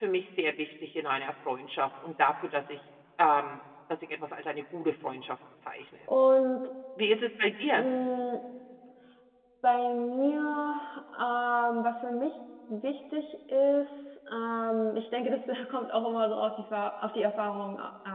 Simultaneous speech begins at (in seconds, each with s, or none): none